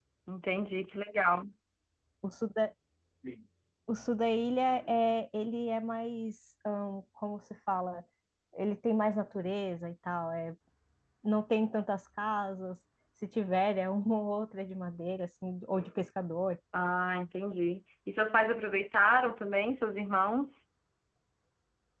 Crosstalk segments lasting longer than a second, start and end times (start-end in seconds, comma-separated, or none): none